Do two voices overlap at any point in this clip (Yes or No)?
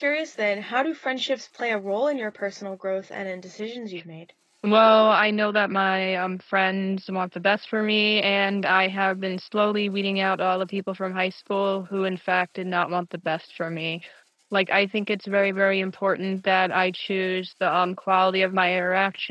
No